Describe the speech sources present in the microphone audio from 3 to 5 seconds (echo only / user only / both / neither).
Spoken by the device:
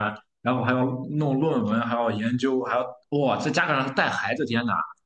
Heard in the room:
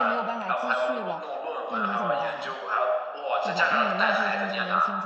both